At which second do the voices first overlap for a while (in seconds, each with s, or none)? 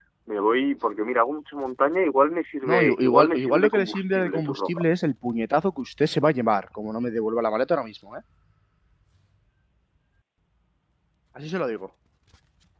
2.6 s